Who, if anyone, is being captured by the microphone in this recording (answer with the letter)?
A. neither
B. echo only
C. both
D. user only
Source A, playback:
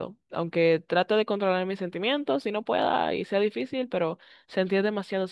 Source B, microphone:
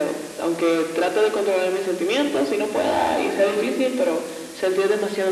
B